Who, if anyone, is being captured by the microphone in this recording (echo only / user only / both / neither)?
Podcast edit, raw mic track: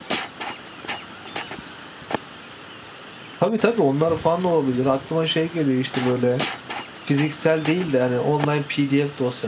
user only